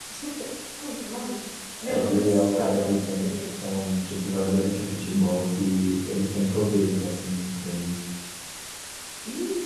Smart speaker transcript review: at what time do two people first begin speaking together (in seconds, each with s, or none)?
1.7 s